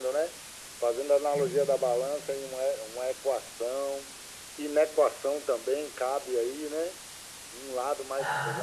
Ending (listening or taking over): listening